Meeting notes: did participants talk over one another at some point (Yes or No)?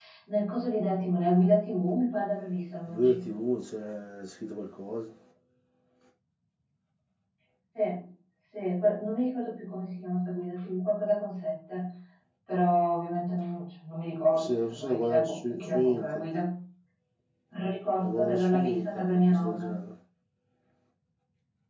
Yes